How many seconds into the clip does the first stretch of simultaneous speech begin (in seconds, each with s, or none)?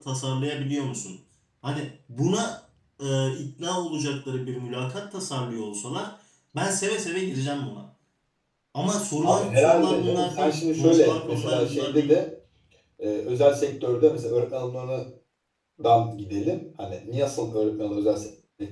9.2 s